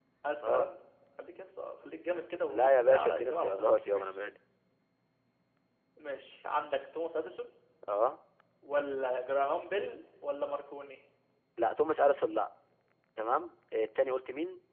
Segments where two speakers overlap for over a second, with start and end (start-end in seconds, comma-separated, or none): 2.5-4.0